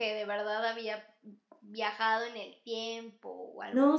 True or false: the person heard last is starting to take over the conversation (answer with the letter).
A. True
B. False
A